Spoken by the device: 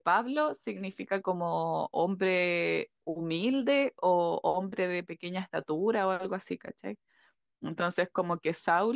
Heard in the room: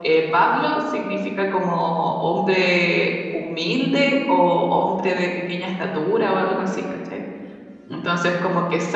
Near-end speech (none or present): none